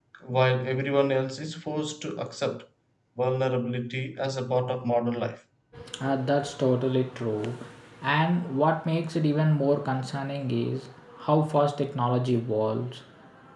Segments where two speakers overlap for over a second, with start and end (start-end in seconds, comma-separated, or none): none